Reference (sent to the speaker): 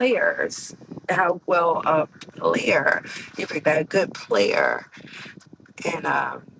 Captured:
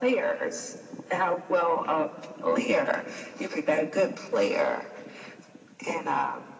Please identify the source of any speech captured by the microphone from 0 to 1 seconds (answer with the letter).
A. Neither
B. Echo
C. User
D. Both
B